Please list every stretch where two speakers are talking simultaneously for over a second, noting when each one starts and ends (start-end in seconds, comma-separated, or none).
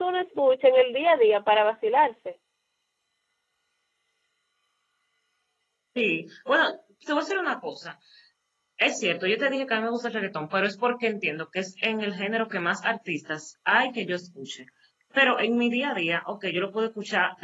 none